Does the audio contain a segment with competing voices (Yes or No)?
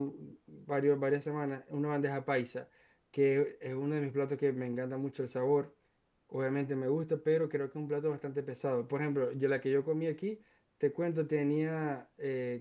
No